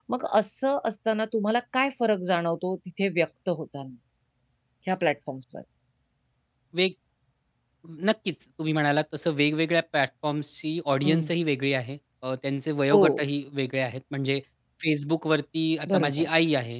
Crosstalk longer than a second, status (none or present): none